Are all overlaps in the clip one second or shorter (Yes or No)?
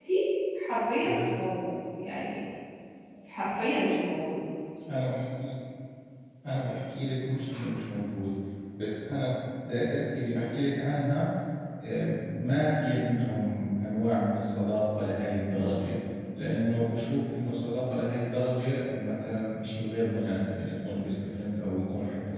Yes